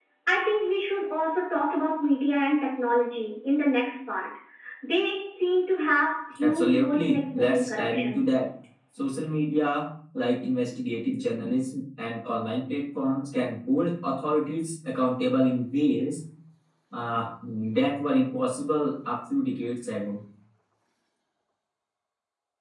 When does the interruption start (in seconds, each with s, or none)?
6.4 s